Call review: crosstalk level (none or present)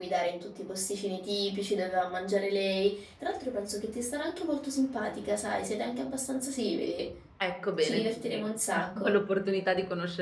present